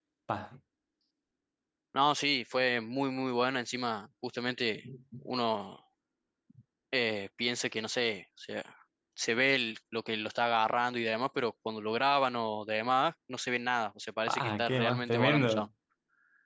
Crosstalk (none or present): present